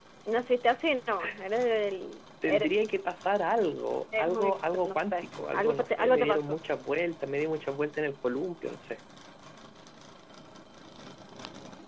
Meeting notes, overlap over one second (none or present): present